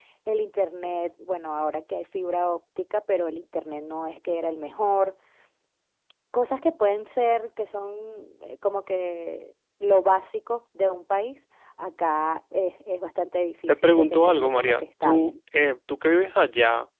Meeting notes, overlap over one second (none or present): present